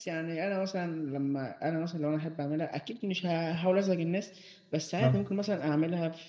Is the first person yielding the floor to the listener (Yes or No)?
No